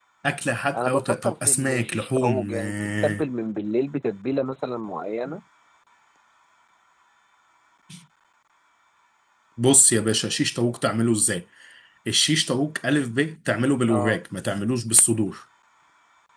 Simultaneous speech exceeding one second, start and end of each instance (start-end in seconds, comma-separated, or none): 0.8-3.2